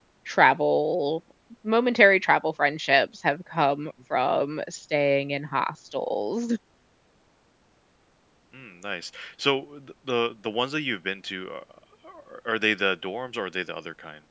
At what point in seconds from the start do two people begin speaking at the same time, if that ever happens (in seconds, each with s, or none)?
none